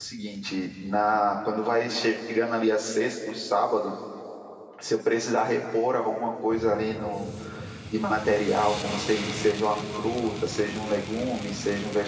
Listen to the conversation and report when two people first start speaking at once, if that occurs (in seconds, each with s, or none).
none